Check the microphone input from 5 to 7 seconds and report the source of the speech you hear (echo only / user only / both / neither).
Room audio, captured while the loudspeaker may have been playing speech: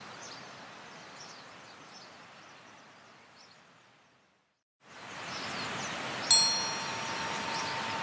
neither